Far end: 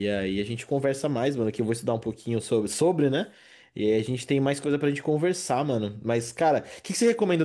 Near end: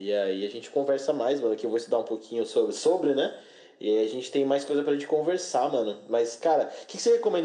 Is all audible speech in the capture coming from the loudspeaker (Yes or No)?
Yes